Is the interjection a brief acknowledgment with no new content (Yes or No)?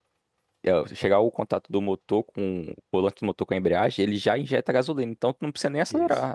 No